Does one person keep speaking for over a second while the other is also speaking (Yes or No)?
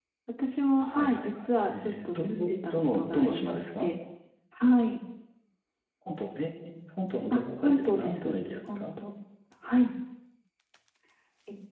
Yes